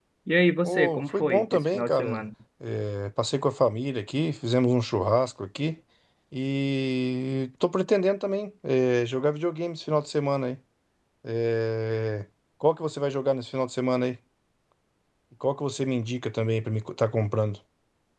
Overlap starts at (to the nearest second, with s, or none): 1 s